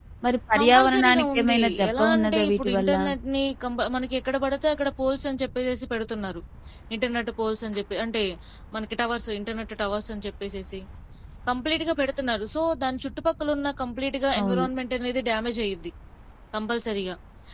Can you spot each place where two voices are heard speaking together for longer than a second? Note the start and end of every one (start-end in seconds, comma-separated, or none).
0.6-2.9